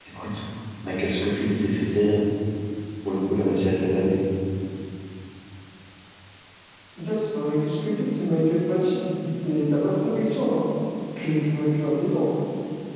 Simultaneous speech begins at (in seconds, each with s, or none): none